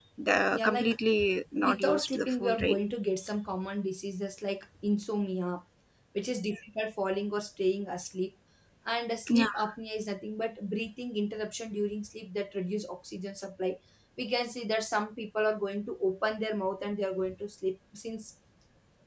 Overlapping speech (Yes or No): Yes